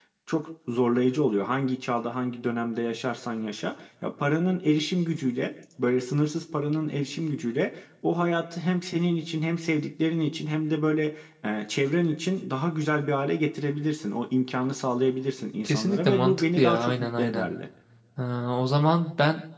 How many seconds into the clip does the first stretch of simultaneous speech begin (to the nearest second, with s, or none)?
16 s